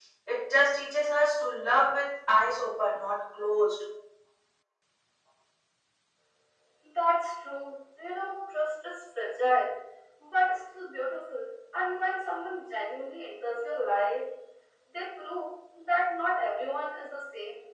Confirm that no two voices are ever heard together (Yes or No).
Yes